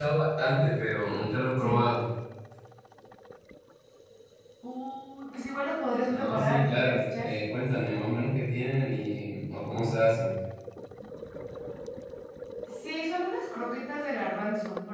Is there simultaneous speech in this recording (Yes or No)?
Yes